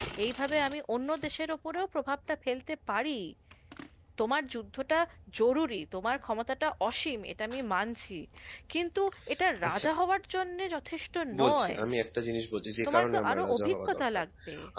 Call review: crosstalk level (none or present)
present